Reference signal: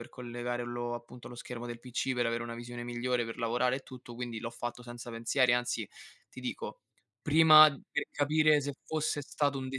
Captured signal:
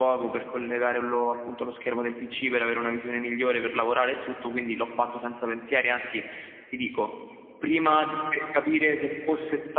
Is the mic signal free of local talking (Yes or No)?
Yes